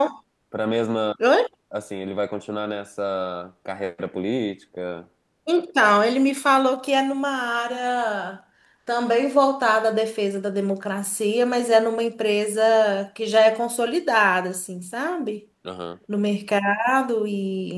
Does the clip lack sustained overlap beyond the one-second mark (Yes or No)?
Yes